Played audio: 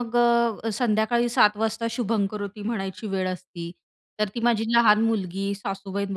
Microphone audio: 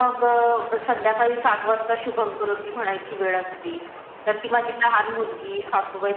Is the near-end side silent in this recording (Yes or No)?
Yes